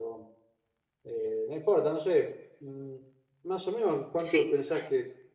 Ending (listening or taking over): listening